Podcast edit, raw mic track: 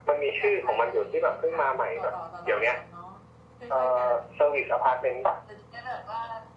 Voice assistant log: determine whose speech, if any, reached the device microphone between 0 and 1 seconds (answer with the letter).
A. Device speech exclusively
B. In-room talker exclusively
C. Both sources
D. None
C